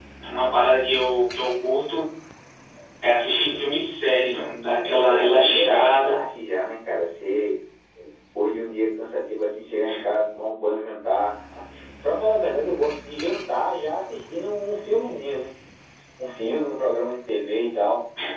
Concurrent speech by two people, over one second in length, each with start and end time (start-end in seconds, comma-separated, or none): 4.8-6.2